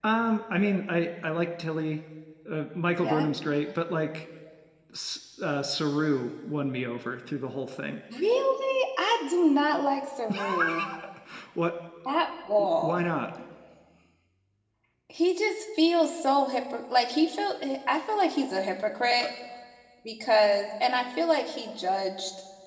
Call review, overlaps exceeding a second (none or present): none